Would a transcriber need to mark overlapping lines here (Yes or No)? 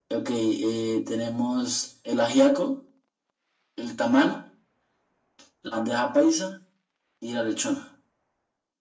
No